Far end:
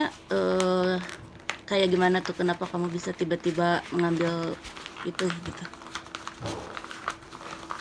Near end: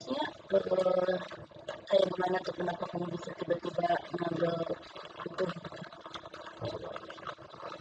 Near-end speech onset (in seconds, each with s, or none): none